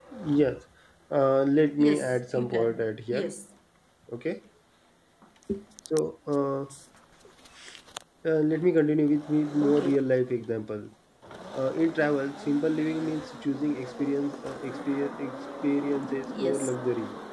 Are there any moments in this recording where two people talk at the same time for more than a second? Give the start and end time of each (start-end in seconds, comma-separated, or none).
1.8-3.3